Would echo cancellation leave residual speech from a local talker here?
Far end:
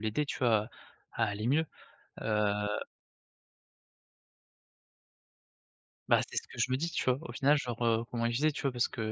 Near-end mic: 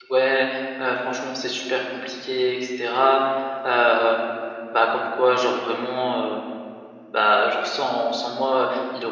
Yes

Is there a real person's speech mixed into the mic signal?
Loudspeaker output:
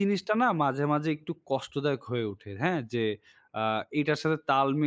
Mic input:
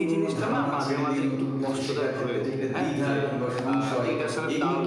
Yes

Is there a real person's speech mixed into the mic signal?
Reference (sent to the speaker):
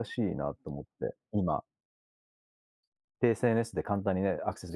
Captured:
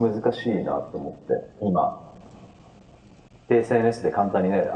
No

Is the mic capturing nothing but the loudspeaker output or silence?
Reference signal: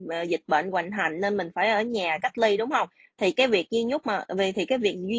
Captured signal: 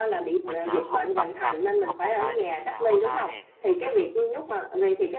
No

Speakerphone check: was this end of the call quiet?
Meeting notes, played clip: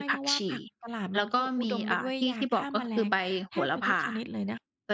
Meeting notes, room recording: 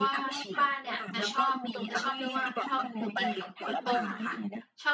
No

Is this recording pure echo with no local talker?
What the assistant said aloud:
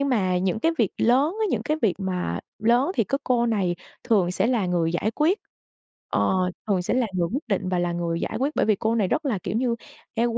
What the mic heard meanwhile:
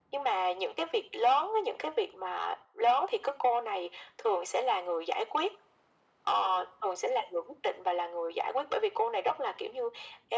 Yes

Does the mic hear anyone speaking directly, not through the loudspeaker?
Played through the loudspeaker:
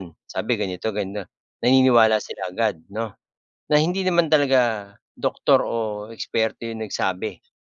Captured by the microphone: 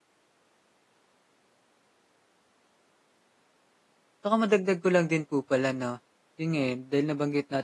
Yes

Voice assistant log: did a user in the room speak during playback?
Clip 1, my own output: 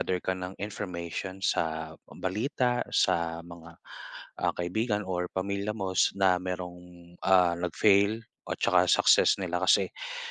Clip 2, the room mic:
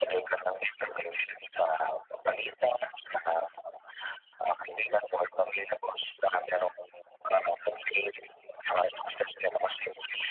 No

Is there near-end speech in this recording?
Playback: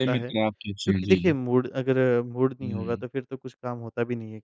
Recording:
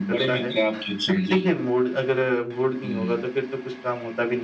No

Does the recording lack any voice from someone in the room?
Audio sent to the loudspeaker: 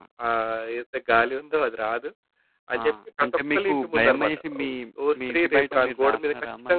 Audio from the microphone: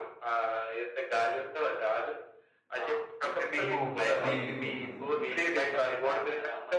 No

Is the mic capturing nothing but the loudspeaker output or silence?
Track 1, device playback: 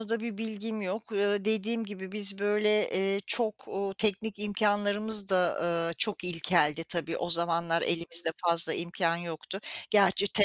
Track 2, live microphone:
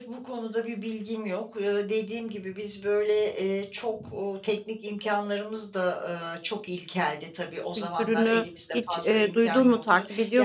No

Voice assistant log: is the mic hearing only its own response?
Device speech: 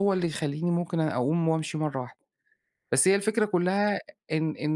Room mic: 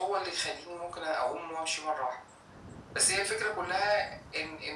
Yes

